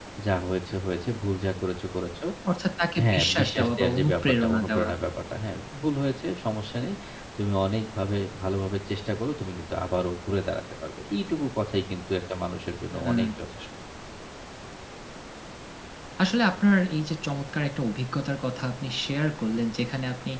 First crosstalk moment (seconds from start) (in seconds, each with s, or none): 3.0 s